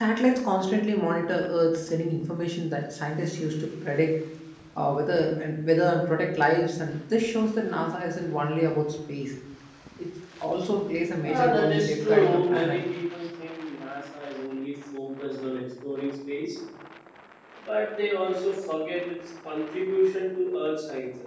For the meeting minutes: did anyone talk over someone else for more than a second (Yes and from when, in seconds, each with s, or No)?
Yes, from 11.2 s